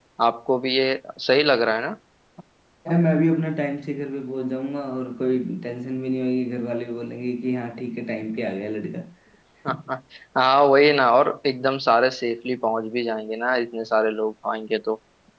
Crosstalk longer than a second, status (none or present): none